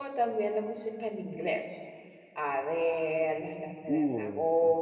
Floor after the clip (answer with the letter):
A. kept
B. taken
A